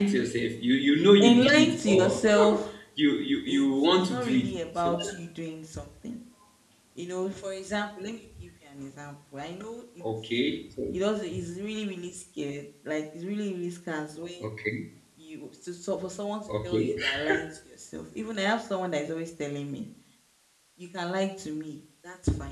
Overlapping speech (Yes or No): Yes